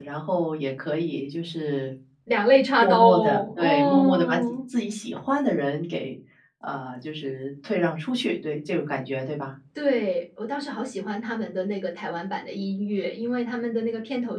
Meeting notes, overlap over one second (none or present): present